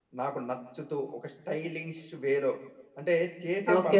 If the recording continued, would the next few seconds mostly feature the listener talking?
Yes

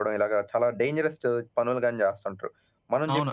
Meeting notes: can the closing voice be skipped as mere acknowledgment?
No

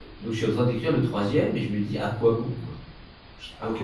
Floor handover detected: Yes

